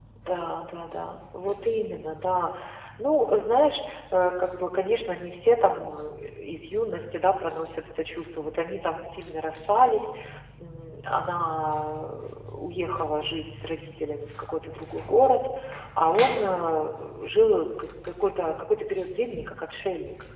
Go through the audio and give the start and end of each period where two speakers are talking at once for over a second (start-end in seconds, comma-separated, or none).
none